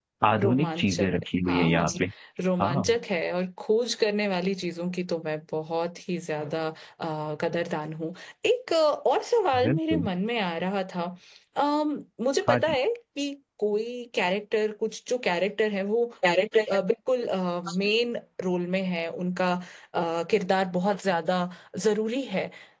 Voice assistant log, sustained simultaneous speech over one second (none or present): present